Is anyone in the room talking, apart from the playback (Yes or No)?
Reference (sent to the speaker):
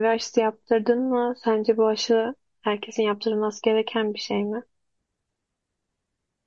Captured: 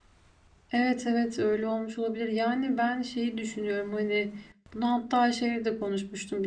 Yes